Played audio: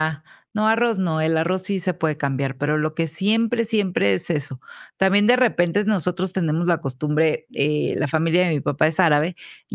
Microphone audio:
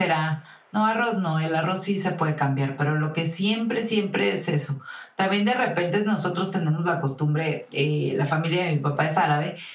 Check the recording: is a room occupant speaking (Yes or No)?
No